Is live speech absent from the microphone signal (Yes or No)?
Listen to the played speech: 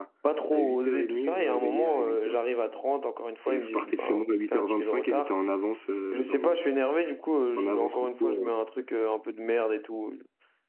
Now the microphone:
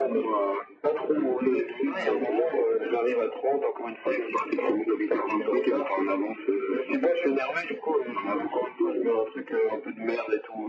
Yes